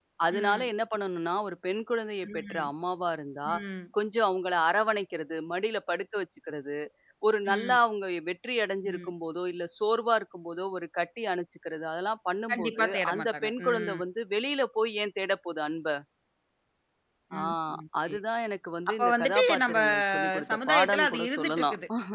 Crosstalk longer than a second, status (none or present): present